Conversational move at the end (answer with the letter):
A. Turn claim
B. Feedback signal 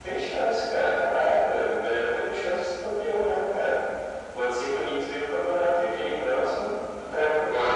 A